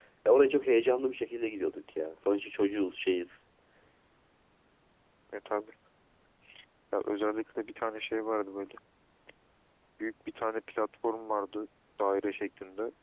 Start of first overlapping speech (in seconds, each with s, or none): none